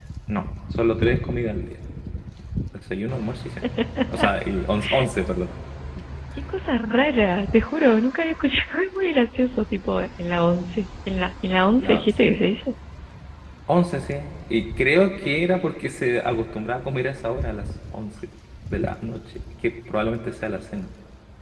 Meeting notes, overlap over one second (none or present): none